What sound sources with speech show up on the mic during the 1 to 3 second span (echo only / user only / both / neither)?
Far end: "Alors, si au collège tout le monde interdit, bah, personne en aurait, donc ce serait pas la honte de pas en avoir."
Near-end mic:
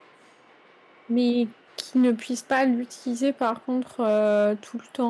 user only